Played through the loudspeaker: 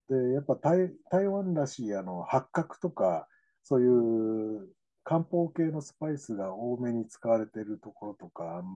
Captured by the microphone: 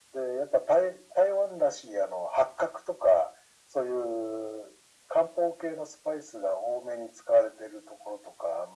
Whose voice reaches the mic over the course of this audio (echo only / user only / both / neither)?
echo only